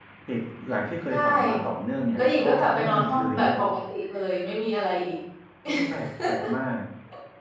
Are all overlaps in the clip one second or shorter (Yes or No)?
No